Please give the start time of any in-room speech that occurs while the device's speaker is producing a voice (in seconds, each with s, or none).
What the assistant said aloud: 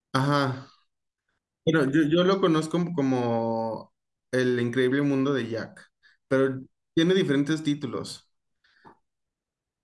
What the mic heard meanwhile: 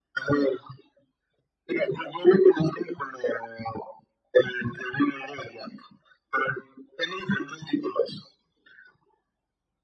none